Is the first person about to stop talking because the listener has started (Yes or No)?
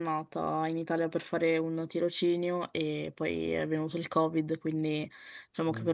No